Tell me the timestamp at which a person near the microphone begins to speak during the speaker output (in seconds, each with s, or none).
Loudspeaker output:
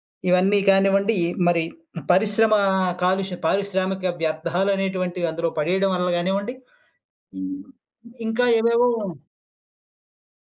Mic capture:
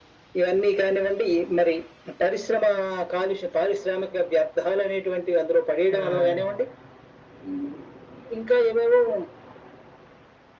6.0 s